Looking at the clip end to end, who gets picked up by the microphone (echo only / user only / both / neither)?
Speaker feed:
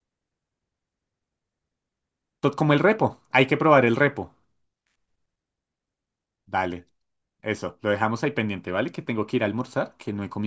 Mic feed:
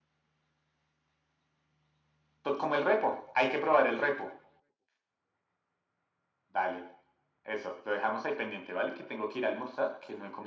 echo only